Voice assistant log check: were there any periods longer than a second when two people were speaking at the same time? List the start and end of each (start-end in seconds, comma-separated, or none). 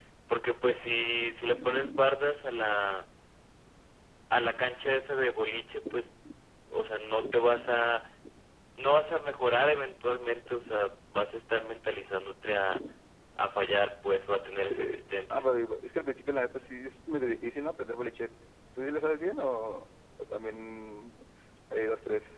none